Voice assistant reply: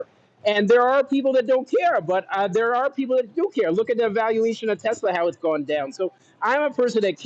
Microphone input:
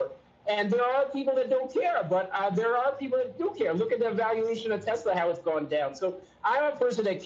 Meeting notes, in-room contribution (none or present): none